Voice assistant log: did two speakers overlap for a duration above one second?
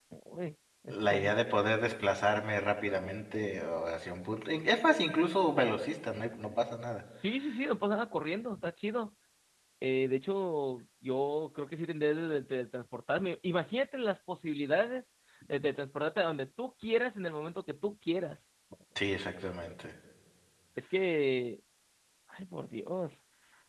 No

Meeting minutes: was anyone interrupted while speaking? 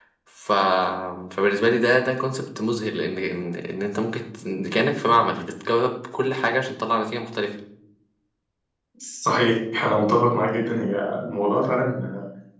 No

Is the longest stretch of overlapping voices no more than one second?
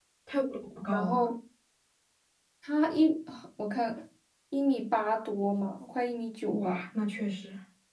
Yes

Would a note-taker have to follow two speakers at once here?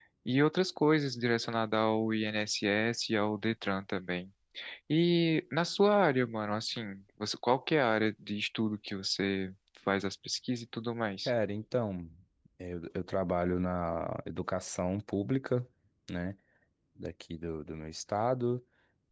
No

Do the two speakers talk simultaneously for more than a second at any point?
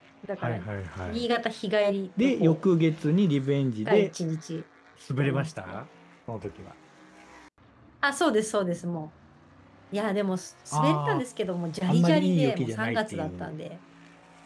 Yes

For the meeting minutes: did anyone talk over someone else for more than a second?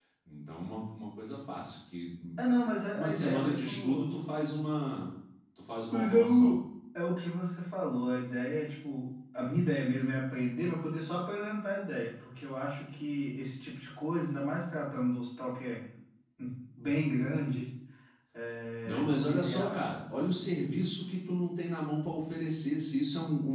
Yes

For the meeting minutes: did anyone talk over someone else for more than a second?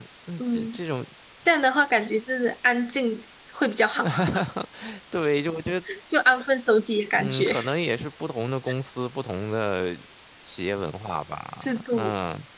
No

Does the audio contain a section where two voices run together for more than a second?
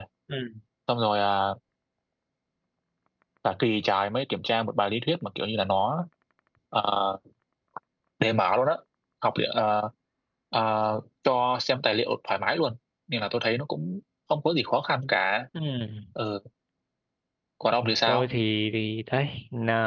No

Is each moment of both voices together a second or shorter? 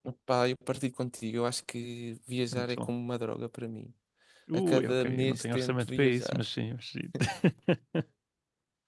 No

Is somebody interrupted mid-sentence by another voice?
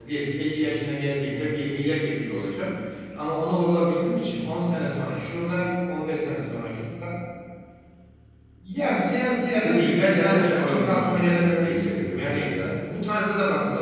Yes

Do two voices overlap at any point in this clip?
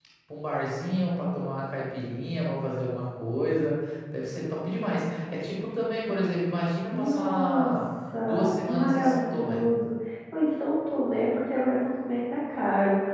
Yes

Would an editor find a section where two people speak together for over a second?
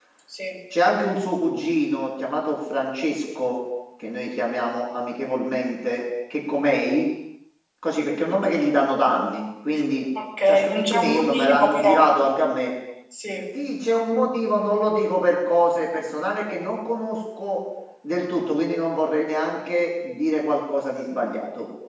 Yes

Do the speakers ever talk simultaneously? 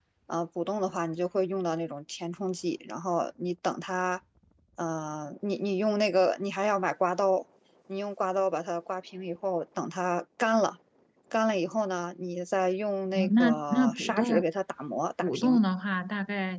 Yes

